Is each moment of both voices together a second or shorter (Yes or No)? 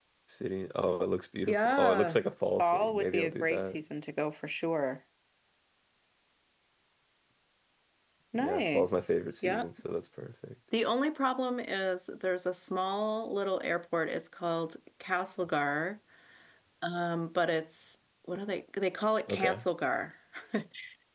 No